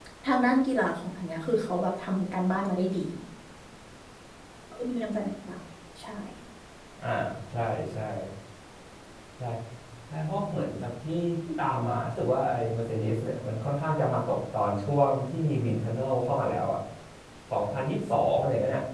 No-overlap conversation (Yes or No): Yes